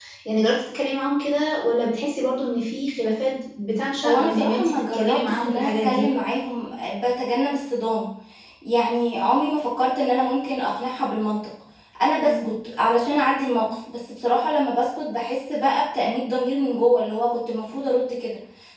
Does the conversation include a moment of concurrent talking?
Yes, from 4.0 s

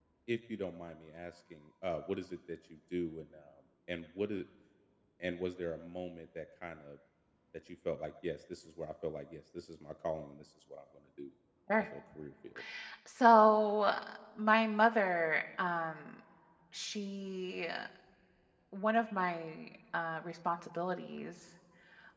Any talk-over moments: No

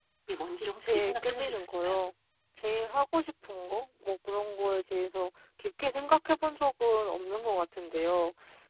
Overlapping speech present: Yes, from 0.8 s

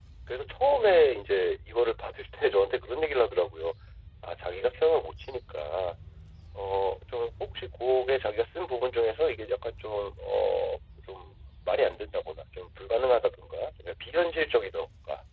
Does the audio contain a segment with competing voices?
No

